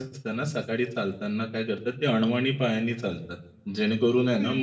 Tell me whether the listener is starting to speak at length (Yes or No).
No